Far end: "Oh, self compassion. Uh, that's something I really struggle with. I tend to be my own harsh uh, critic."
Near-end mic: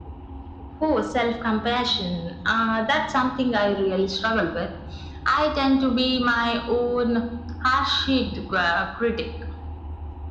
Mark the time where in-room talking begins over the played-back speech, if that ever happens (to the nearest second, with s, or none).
none